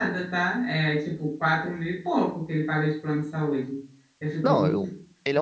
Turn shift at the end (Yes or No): Yes